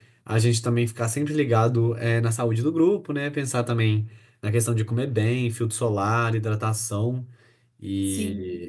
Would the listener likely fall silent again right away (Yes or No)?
No